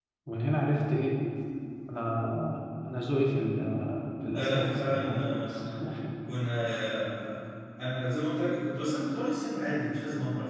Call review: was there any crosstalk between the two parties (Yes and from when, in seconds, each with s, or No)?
Yes, from 4.3 s